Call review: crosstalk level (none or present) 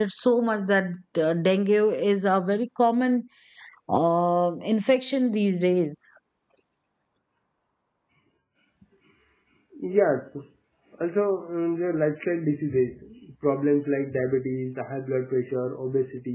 none